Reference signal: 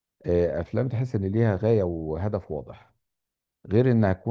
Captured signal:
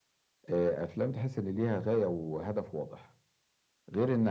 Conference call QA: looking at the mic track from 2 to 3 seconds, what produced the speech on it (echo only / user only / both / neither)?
echo only